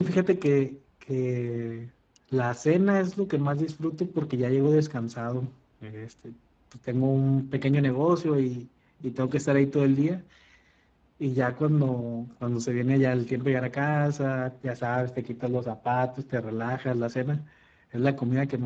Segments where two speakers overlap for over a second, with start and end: none

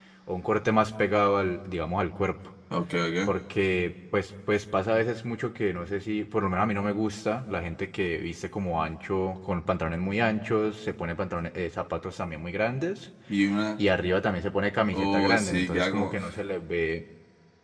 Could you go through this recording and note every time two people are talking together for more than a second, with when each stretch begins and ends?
14.9-16.2

